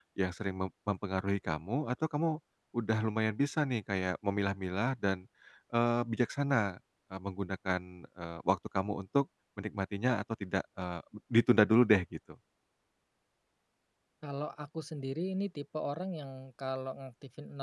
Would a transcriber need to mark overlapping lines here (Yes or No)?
No